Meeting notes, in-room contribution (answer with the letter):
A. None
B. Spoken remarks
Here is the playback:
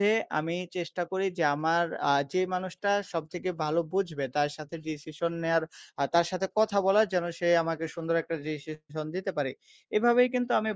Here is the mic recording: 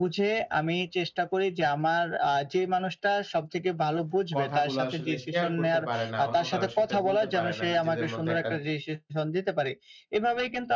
B